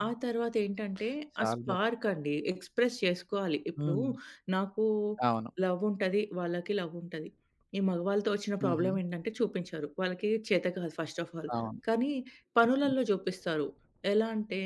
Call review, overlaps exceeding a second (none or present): none